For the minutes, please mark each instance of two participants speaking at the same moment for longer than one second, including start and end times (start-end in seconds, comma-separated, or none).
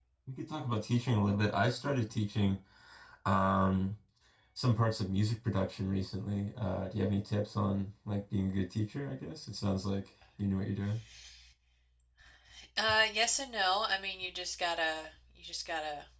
none